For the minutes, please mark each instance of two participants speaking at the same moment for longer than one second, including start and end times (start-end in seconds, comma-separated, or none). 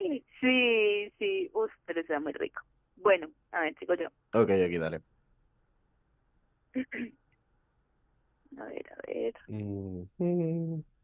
none